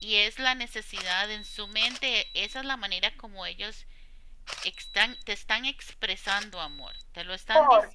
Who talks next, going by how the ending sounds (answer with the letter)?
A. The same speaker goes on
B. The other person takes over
A